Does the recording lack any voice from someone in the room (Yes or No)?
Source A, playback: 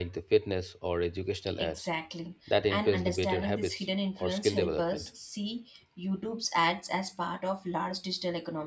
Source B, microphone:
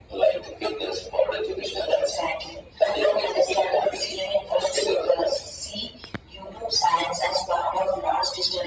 Yes